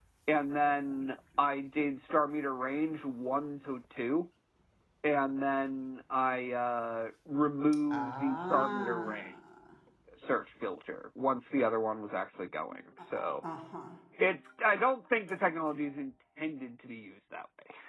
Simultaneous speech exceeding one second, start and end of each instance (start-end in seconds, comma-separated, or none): 7.9-9.3